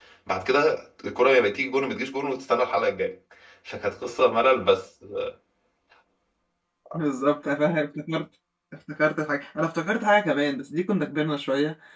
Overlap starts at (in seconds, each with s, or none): none